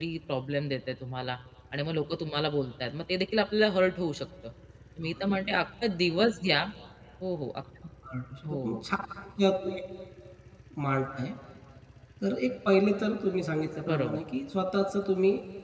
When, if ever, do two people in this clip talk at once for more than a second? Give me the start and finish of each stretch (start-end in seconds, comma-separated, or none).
none